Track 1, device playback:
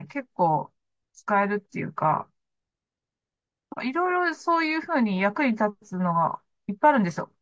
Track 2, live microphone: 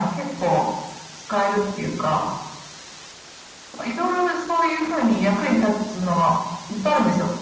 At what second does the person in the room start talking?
none

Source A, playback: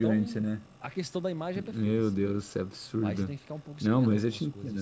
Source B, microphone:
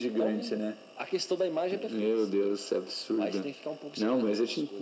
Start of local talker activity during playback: none

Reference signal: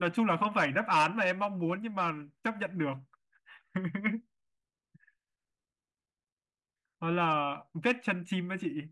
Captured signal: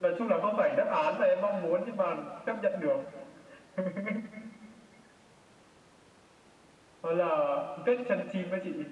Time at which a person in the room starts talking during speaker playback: none

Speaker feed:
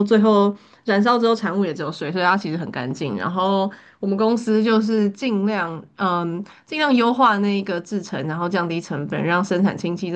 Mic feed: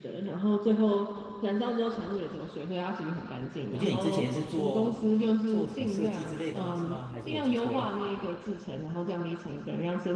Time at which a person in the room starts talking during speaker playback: 3.7 s

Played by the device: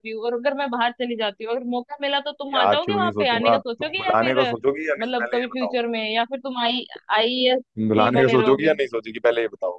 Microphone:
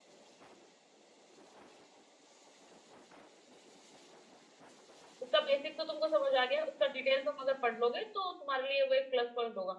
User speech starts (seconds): 5.2 s

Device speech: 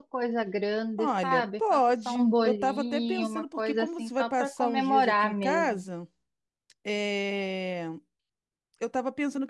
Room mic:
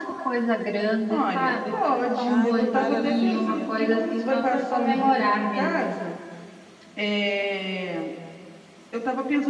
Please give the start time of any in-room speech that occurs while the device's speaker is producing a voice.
2.2 s

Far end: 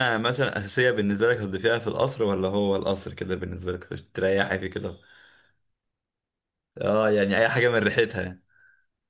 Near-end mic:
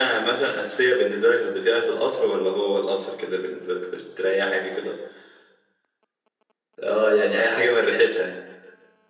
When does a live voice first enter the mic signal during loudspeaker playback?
none

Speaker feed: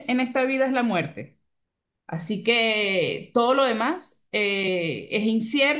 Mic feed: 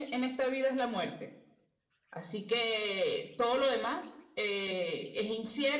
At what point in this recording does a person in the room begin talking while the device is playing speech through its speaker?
none

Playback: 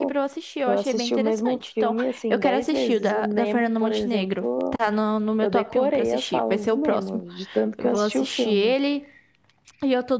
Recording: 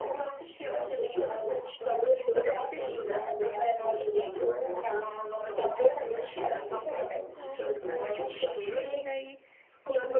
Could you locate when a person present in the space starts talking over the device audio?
6.0 s

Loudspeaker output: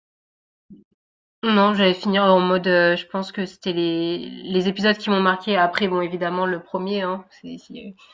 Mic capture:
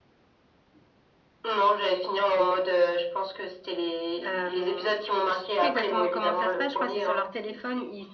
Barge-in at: 4.2 s

